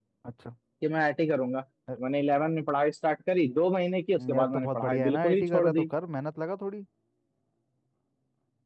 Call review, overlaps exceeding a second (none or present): present